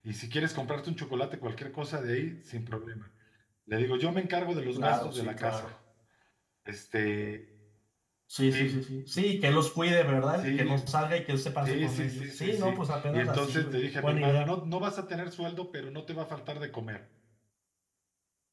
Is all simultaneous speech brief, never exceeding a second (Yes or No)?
No